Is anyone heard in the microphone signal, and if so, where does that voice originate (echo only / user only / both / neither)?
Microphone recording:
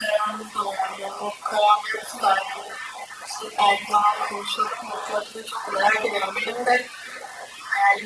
echo only